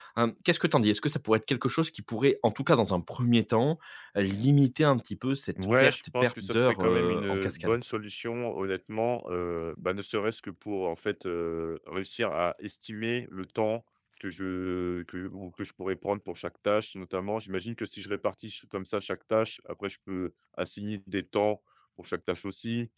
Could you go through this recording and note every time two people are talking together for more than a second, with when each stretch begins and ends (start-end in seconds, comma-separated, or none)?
5.8-7.8